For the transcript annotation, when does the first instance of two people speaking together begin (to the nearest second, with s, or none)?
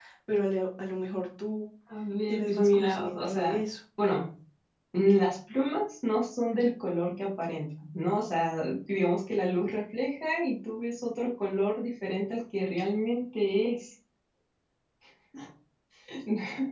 2 s